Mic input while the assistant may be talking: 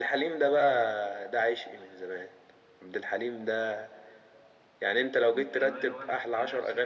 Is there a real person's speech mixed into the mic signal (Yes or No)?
Yes